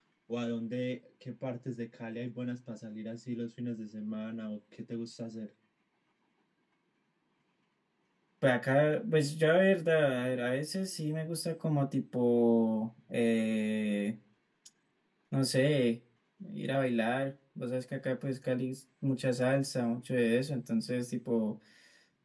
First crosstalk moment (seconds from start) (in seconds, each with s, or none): none